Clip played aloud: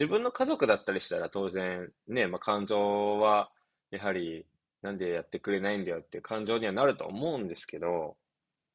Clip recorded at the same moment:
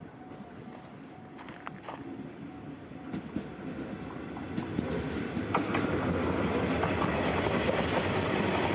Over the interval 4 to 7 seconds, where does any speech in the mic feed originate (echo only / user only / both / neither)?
neither